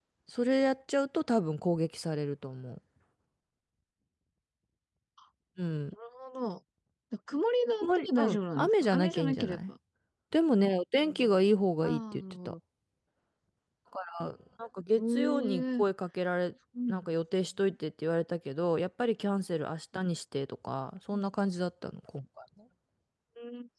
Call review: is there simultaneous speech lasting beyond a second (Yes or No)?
Yes